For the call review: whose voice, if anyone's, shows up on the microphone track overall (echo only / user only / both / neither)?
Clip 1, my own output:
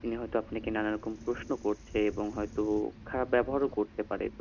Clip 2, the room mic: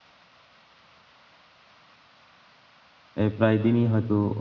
user only